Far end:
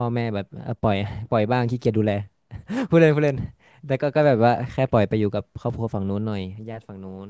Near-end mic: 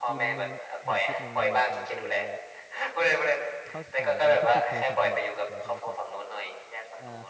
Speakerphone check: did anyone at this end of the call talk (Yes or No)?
Yes